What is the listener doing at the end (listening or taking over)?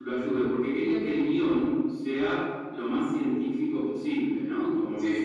taking over